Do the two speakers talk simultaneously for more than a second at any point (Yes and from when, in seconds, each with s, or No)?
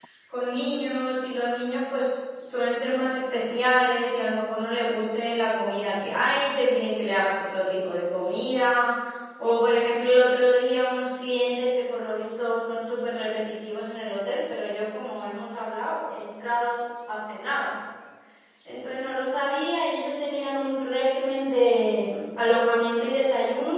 No